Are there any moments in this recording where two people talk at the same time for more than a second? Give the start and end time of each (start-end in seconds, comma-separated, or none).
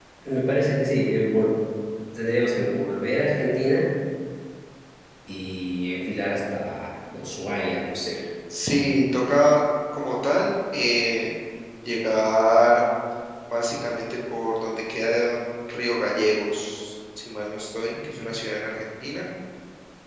none